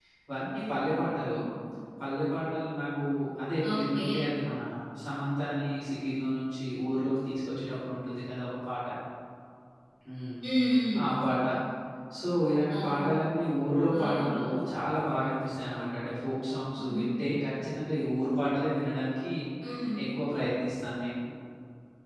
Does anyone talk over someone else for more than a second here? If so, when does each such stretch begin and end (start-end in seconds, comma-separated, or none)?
none